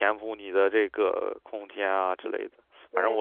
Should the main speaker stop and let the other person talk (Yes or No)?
No